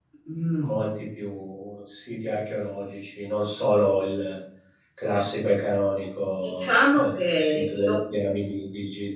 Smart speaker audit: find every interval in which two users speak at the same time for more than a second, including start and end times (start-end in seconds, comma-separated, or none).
6.4-7.9